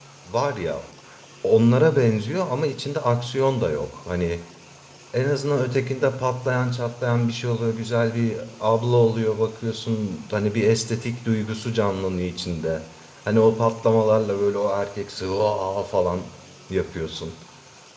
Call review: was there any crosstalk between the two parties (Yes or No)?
No